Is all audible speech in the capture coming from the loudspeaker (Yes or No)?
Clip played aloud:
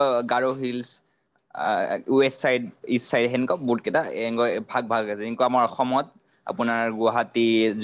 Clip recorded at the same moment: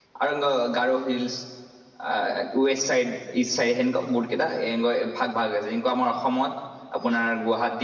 Yes